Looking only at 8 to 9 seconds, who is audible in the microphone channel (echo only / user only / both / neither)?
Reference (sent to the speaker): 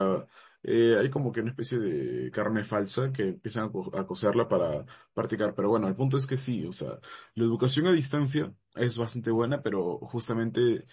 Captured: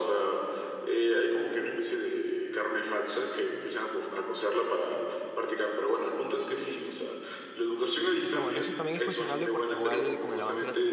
both